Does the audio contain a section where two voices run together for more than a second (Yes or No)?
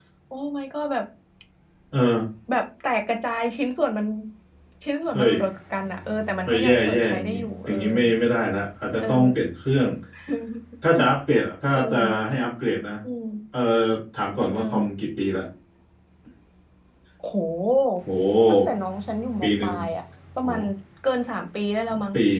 Yes